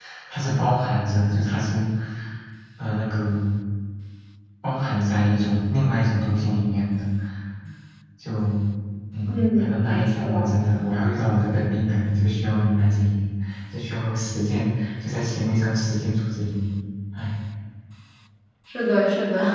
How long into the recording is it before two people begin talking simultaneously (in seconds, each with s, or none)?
9.3 s